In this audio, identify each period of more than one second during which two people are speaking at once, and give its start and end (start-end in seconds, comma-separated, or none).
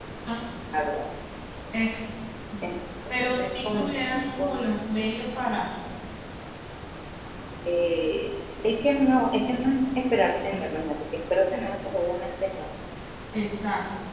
3.1-4.8